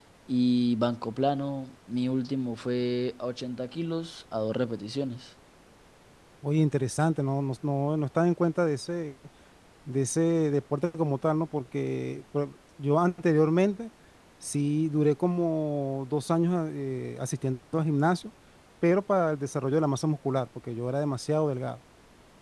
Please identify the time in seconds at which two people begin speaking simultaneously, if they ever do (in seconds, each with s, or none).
none